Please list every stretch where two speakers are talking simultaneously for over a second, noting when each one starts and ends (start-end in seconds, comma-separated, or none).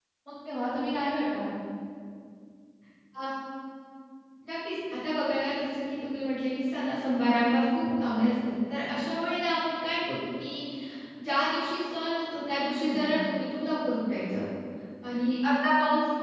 none